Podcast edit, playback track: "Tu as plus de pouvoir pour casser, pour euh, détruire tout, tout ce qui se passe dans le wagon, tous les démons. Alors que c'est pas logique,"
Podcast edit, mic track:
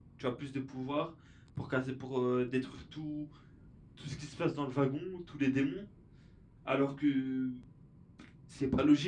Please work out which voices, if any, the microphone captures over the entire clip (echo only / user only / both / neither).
echo only